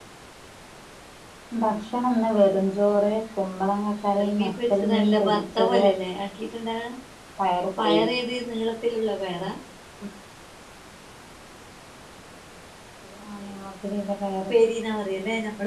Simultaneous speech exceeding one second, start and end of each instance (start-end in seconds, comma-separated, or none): 4.2-5.8